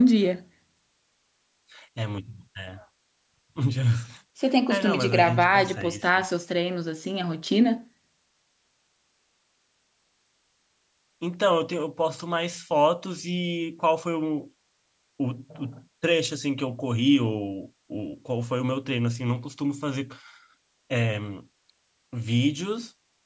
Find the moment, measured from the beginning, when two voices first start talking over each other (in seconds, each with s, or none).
4.7 s